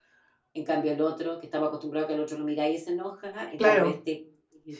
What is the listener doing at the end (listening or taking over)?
listening